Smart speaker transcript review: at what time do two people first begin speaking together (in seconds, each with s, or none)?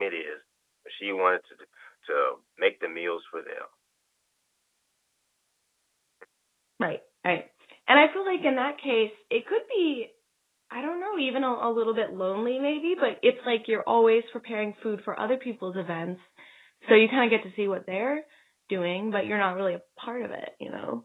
none